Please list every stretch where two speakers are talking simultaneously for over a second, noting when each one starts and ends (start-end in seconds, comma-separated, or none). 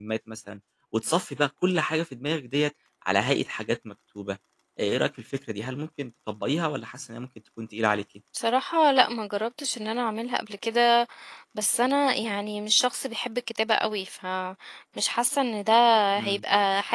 none